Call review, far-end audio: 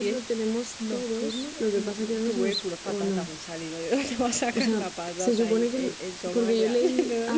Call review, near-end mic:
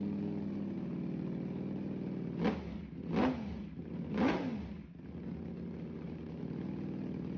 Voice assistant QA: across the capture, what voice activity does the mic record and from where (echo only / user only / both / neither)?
neither